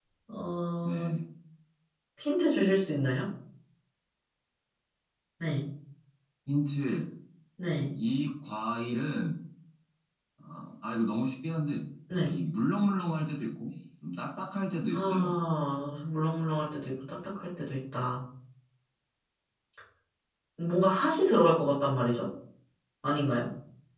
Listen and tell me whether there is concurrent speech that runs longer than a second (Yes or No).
No